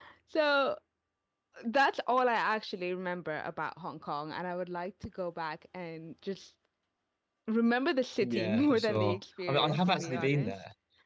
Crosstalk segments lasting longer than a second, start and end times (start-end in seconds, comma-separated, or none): 8.2-10.5